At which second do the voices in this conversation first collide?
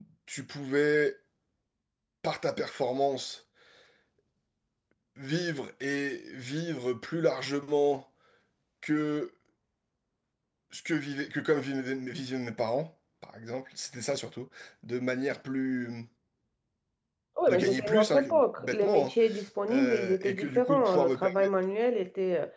17.5 s

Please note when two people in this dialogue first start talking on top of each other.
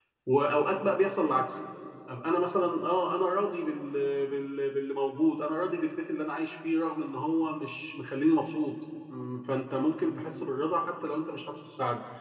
none

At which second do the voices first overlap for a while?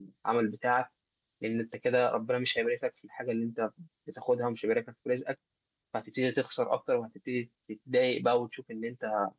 none

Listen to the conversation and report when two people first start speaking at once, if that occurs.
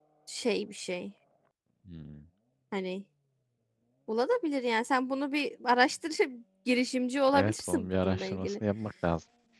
7.3 s

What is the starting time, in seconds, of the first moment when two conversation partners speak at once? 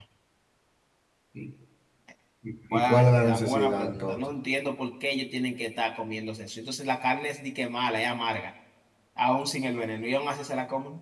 2.7 s

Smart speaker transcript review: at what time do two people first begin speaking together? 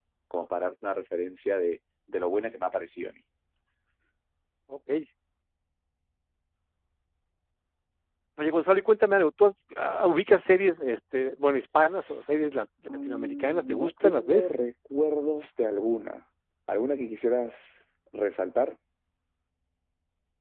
13.1 s

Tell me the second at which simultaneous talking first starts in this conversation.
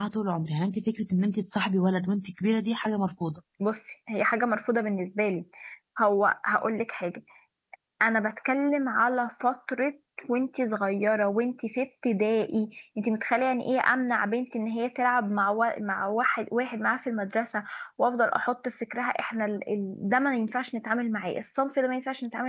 none

